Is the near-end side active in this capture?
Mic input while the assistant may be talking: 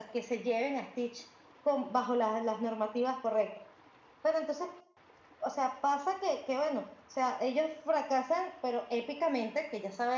No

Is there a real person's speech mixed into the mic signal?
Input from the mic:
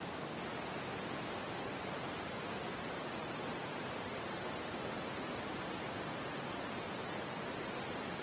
No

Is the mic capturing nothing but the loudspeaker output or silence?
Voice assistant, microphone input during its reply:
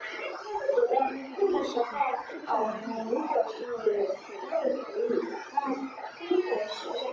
No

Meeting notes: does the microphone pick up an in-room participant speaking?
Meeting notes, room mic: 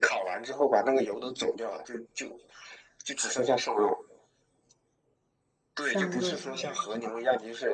Yes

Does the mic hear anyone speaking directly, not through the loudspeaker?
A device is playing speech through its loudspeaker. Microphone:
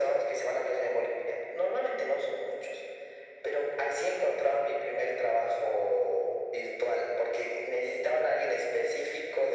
No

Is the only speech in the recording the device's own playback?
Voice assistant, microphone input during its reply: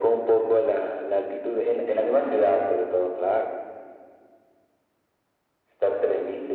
Yes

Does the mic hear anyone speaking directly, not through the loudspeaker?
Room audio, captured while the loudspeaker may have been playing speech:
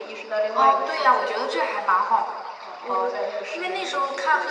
No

